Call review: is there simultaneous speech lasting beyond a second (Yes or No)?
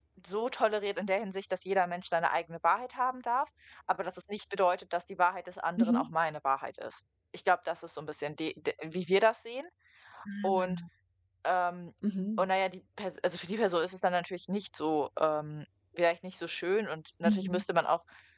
No